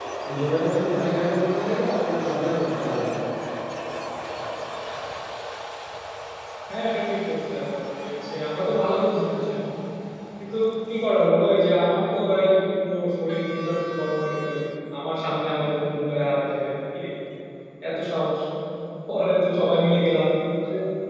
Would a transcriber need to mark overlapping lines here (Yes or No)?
No